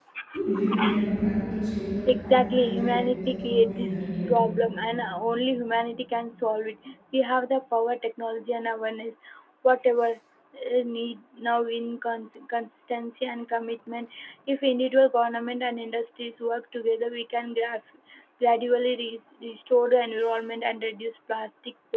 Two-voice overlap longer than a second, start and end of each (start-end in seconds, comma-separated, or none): 2.1-4.3